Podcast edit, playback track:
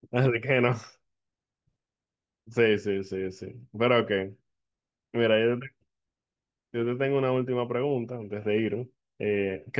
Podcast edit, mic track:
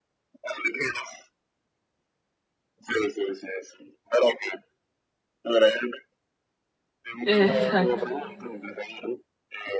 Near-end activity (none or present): present